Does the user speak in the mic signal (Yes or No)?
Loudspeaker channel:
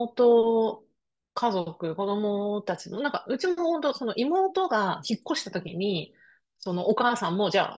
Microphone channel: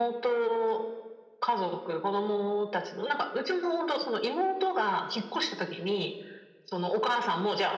No